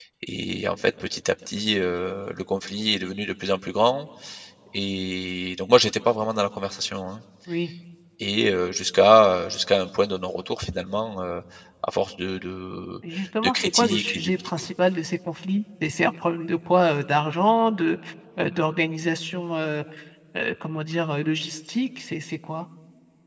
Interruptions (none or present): present